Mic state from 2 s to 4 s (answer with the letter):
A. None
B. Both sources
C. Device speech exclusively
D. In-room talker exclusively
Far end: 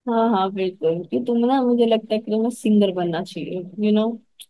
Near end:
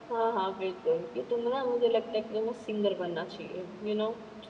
C